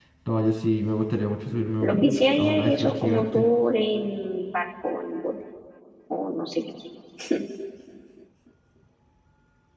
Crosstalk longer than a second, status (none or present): present